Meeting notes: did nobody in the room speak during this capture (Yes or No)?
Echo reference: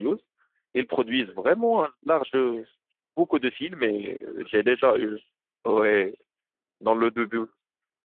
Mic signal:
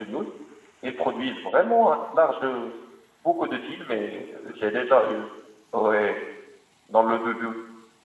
Yes